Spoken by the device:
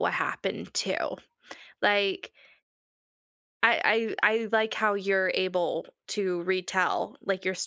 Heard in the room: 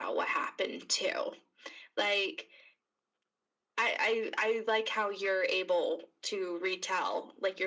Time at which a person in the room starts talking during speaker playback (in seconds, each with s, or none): none